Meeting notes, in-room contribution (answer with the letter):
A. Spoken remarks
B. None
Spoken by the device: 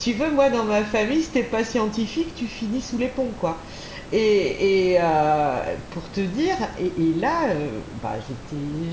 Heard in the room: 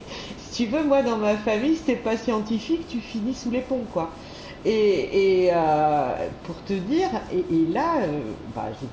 B